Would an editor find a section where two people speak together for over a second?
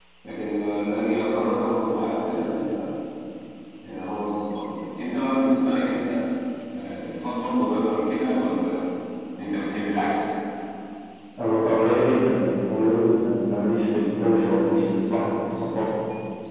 No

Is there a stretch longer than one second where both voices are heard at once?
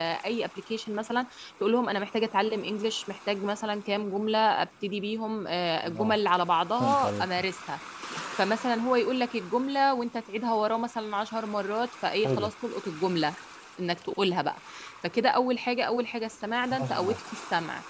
No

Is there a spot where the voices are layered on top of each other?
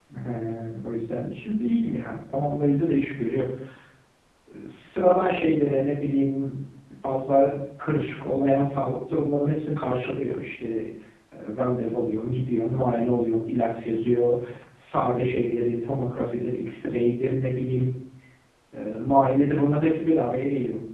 No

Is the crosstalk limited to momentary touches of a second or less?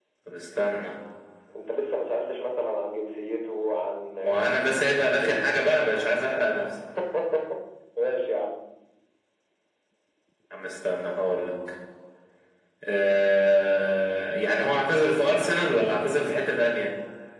Yes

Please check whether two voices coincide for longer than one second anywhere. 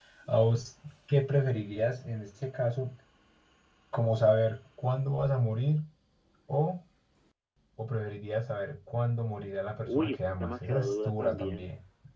Yes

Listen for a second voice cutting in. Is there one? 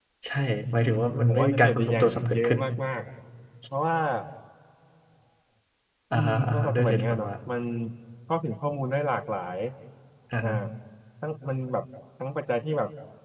Yes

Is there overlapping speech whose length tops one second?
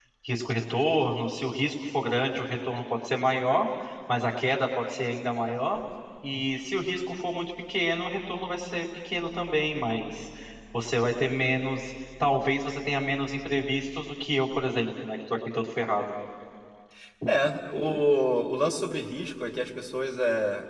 No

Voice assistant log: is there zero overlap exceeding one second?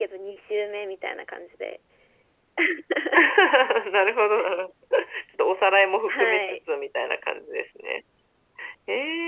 Yes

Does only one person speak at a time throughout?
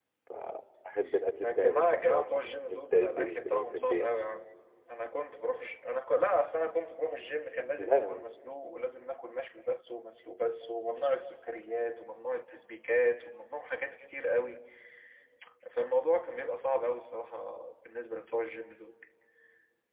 No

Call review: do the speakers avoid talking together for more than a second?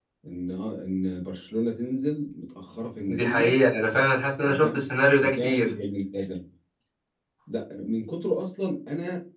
Yes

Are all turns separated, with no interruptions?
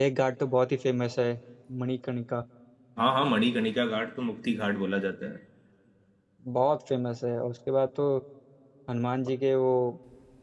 Yes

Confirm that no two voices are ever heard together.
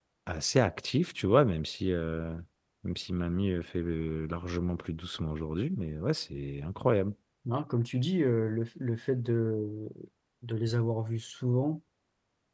Yes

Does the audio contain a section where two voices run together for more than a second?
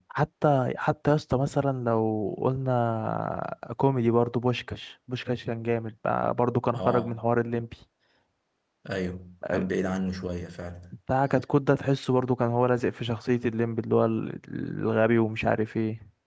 No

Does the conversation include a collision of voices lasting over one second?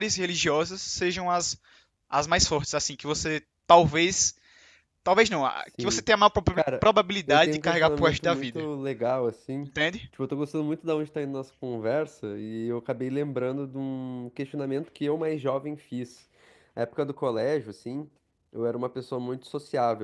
Yes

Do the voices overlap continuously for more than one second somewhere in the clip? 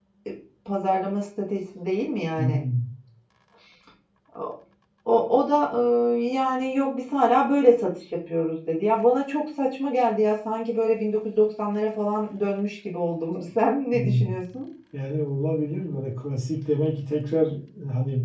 No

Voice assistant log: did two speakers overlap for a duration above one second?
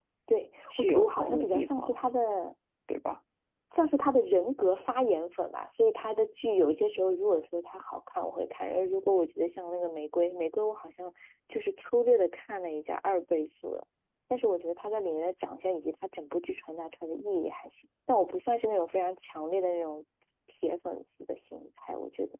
Yes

